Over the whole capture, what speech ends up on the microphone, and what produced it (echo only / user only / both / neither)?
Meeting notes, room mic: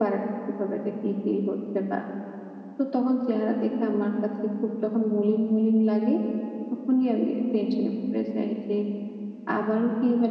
echo only